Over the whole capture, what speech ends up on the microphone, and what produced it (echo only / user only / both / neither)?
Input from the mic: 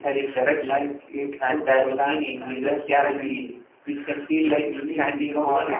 both